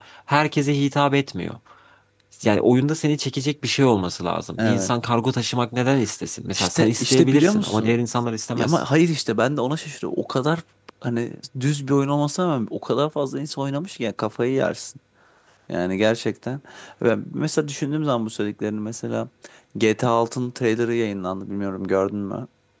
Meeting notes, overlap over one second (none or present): present